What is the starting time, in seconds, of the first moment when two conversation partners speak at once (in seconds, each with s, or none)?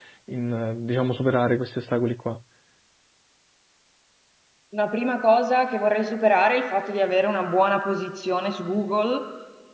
none